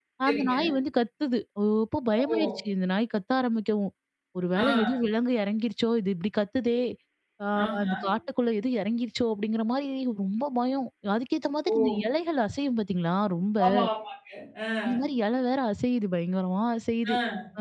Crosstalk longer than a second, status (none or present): none